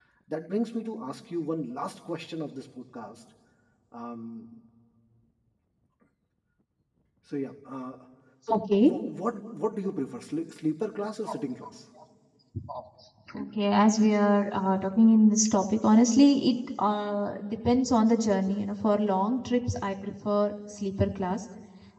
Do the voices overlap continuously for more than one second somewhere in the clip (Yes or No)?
No